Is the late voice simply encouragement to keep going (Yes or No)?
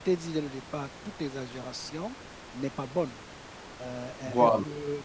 Yes